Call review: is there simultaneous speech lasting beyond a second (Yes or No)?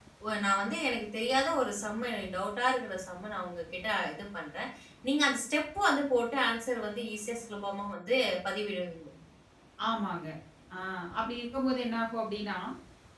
No